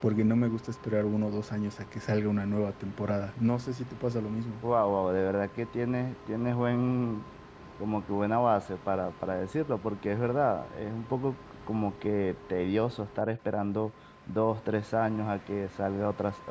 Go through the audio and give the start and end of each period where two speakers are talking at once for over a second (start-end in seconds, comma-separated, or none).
none